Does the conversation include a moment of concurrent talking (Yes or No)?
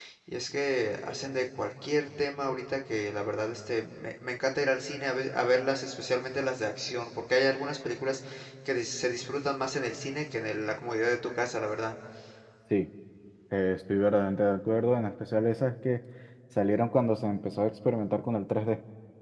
No